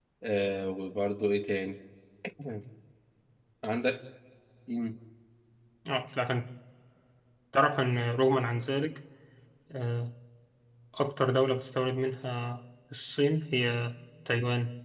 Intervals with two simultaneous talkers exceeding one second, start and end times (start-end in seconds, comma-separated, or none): none